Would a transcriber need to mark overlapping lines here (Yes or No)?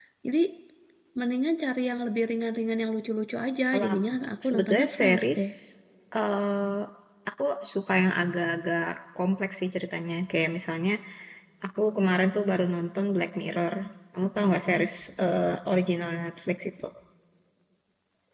Yes